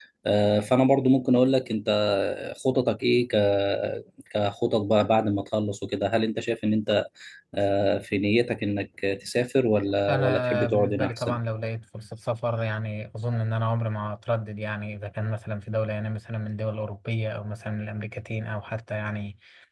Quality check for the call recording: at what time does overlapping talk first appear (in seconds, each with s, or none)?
10.1 s